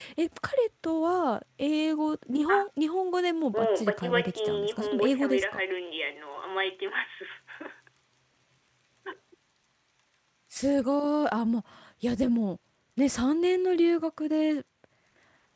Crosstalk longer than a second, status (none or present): present